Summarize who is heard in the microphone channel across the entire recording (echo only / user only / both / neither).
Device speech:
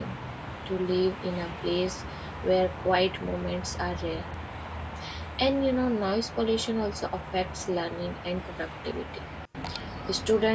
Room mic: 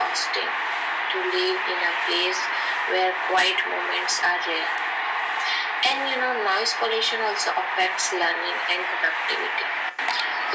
echo only